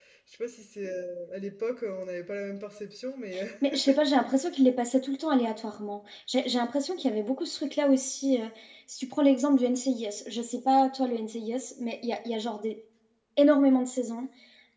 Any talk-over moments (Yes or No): No